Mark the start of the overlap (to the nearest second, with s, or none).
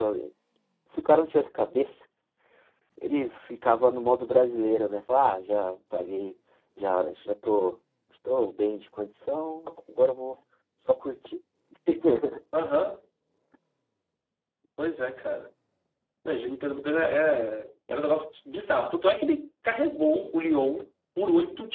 none